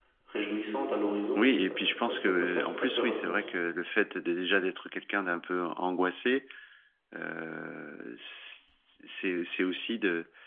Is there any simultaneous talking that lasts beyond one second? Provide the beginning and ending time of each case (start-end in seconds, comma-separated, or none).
1.4-3.4